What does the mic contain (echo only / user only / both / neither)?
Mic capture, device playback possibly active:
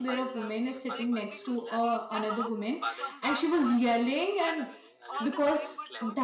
both